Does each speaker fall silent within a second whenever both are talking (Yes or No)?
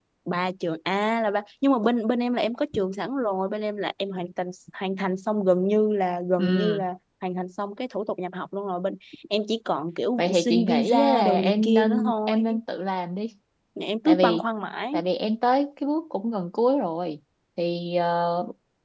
No